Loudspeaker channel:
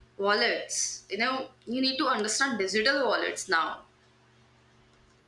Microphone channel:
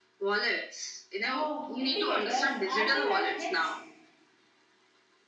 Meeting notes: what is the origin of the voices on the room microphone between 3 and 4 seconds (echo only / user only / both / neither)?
both